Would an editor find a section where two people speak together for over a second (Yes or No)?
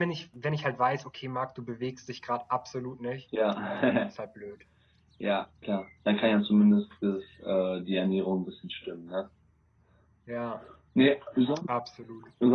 No